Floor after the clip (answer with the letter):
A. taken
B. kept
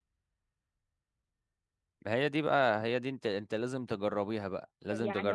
A